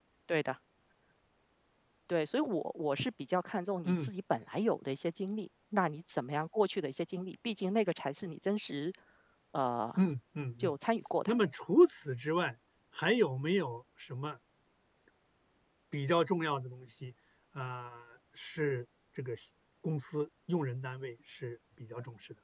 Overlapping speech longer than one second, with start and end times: none

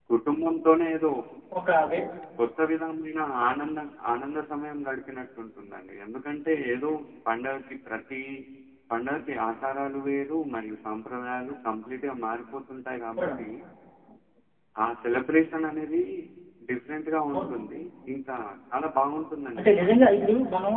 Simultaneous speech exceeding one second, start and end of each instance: none

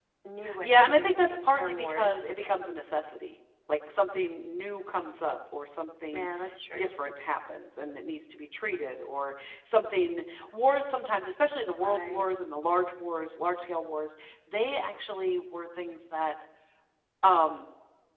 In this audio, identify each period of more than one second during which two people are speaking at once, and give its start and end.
0.6-2.2

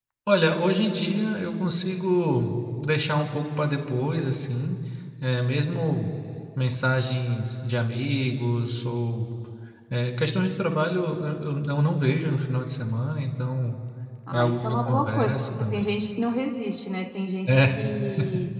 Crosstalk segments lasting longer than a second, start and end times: 14.3-15.8

